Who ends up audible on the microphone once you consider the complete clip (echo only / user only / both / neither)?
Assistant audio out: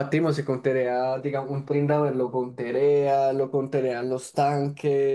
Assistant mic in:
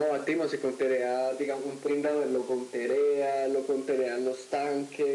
echo only